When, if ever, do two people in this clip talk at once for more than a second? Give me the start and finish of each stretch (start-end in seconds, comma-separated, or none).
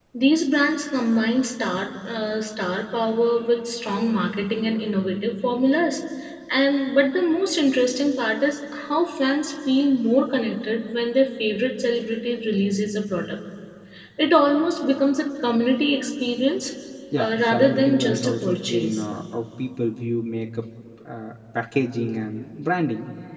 17.2-19.0